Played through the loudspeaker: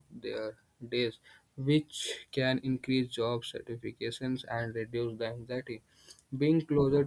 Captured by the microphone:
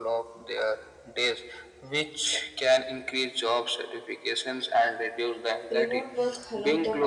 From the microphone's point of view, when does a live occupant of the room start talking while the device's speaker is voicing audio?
6 s

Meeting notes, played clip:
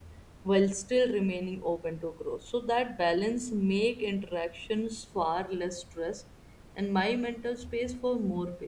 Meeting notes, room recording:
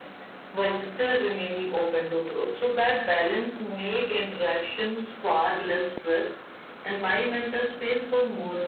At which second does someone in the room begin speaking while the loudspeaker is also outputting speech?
none

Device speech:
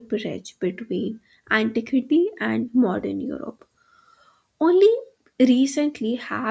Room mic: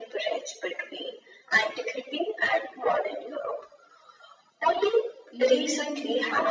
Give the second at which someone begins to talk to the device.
5 s

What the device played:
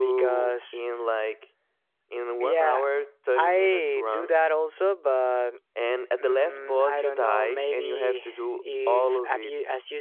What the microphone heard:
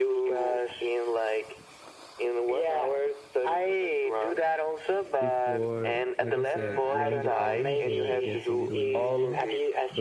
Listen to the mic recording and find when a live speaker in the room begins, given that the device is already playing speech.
5 s

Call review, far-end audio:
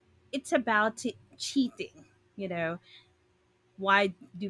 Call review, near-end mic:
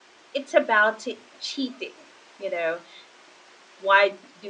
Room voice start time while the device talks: none

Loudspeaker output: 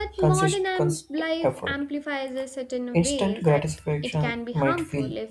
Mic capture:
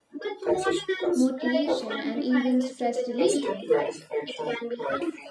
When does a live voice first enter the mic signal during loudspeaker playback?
1 s

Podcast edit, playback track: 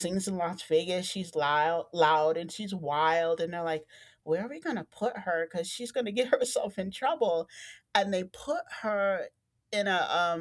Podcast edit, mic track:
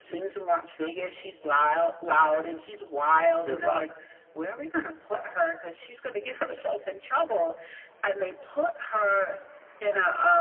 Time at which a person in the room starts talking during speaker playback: 3 s

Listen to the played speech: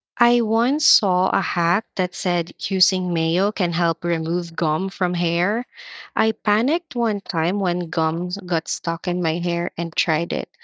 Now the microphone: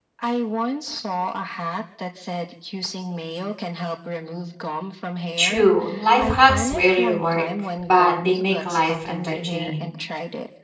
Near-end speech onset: 5 s

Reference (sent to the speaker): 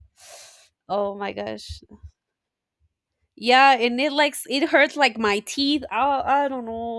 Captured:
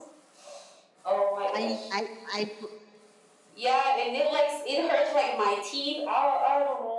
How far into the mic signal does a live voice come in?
1 s

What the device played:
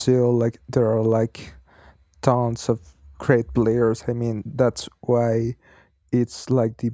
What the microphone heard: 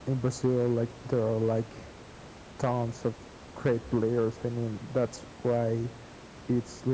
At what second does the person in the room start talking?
none

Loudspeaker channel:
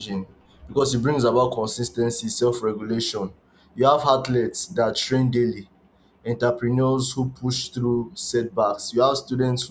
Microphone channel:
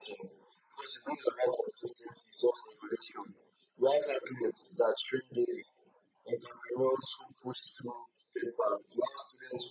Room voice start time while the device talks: none

